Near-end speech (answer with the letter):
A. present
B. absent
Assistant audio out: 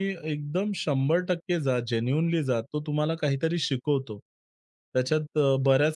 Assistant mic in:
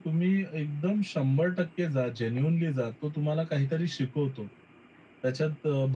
B